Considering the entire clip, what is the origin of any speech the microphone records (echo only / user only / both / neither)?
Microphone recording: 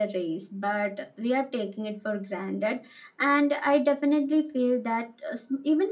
echo only